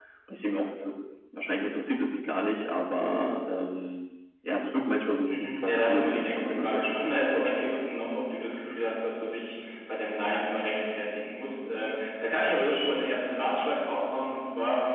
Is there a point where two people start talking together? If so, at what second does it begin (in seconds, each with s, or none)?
5.3 s